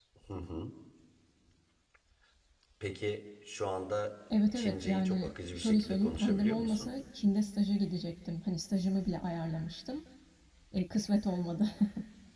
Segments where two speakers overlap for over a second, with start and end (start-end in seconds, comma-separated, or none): 4.5-6.9